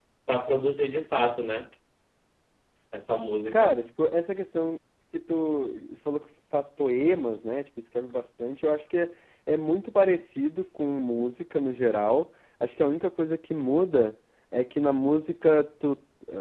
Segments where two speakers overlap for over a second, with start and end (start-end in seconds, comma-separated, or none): none